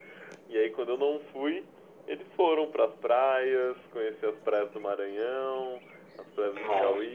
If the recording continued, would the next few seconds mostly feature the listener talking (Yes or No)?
No